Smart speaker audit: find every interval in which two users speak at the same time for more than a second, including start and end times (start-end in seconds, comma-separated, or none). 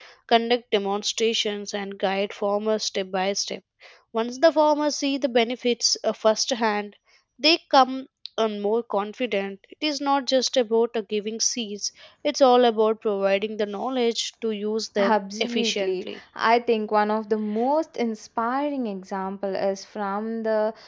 15.0-16.2